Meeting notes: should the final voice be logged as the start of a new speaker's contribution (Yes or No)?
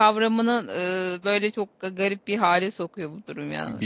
Yes